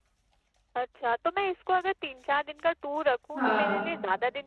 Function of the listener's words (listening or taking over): listening